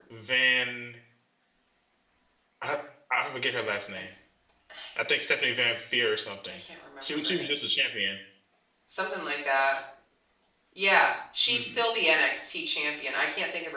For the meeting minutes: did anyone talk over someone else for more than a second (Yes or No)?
No